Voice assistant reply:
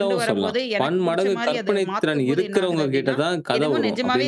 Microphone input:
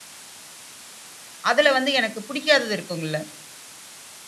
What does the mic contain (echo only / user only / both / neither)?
user only